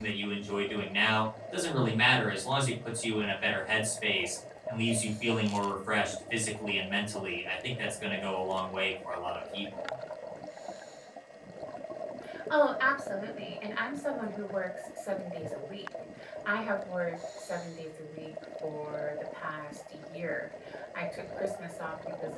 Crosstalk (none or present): none